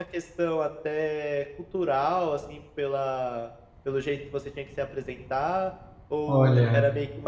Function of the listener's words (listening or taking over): listening